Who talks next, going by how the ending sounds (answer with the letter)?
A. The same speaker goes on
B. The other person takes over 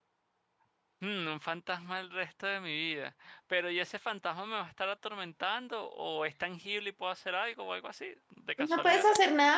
B